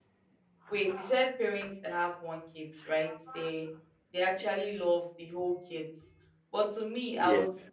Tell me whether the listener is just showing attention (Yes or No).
Yes